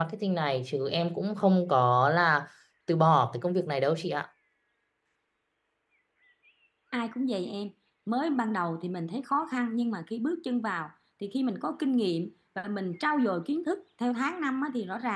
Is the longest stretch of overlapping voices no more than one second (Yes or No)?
Yes